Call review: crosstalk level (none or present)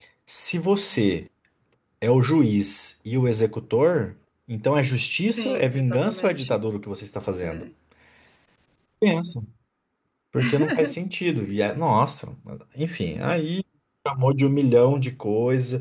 present